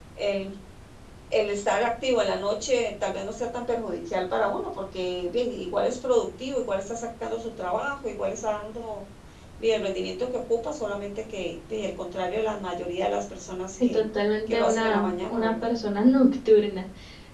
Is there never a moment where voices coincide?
No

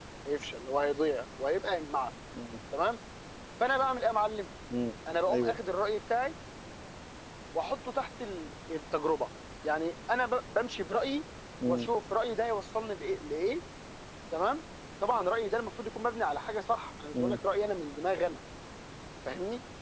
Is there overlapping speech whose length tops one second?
No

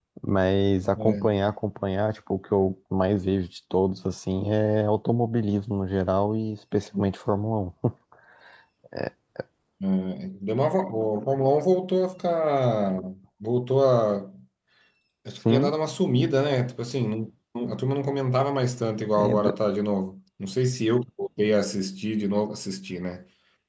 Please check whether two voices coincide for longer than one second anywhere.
No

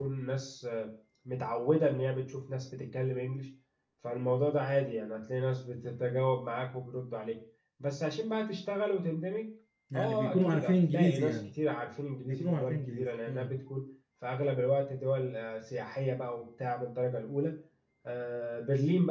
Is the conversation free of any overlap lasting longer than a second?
No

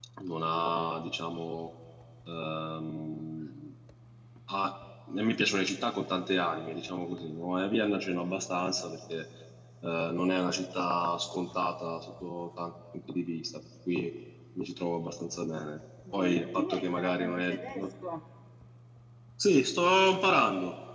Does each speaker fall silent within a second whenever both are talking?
No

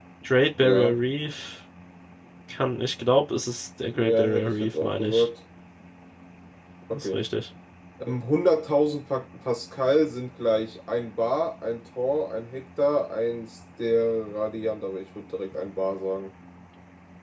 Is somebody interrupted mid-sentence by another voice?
Yes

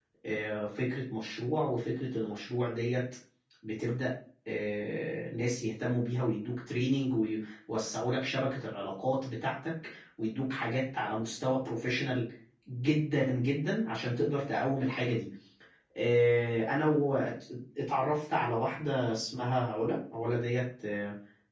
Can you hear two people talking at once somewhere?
No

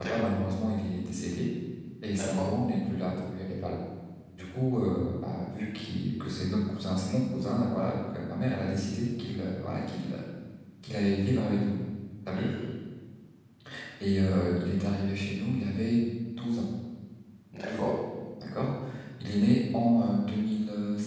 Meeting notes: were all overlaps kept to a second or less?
Yes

